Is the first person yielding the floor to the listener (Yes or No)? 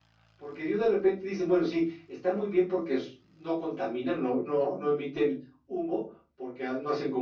No